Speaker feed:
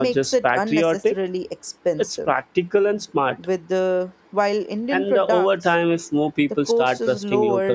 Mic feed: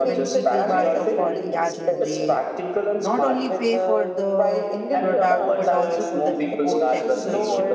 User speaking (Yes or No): Yes